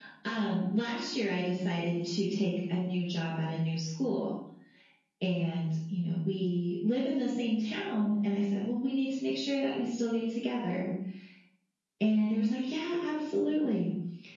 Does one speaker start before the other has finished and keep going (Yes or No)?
No